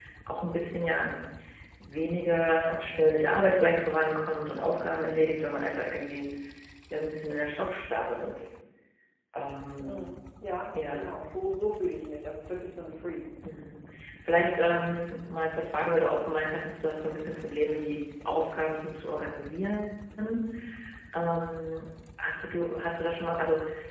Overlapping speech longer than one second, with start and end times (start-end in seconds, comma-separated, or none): none